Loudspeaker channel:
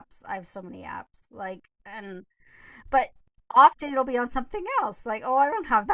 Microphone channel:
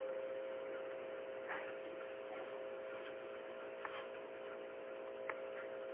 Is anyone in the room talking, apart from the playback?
No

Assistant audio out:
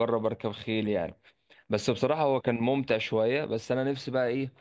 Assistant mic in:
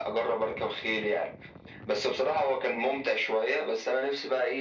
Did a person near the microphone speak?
No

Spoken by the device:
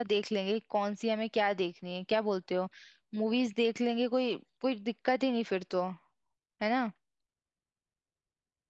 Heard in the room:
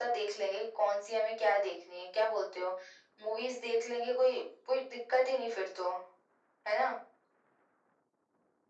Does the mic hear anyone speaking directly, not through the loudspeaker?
No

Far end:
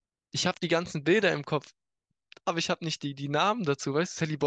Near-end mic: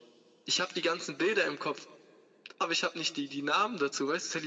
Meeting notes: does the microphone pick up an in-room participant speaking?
No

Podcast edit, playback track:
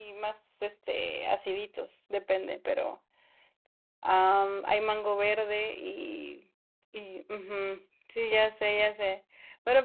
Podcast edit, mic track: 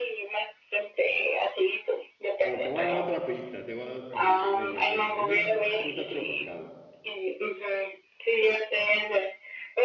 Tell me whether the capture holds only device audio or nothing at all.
No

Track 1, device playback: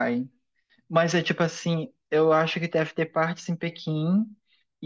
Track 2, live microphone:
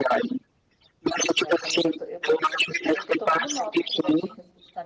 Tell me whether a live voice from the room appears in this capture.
Yes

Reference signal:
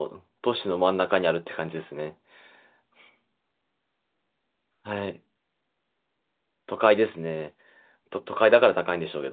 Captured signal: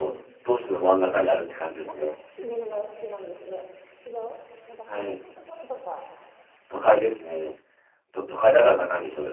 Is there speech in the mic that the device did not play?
Yes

